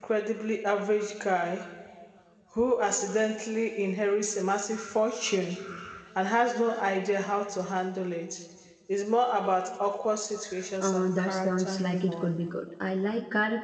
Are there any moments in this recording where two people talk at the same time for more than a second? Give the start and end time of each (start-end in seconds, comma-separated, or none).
10.8-12.3